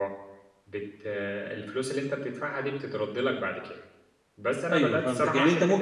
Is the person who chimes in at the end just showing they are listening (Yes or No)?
No